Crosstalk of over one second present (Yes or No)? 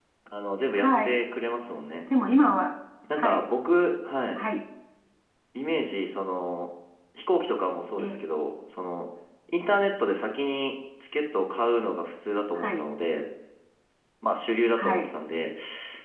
No